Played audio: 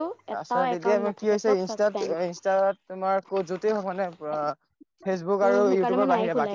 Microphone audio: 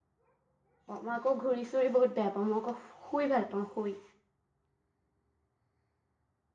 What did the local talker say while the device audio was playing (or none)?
অ' মই আকৌ ঘূৰি চুৰি বহুত বেয়া পাওঁ, মই আকৌ শুই ভাল পাওঁ শুই।